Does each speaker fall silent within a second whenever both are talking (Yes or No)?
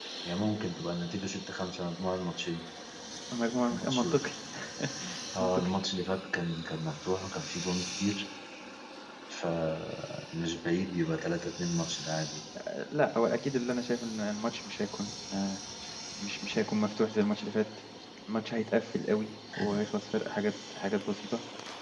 Yes